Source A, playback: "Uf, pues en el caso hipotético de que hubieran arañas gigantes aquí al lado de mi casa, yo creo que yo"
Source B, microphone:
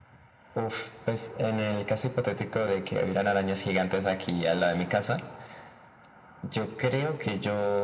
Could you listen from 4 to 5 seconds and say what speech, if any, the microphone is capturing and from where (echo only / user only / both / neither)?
echo only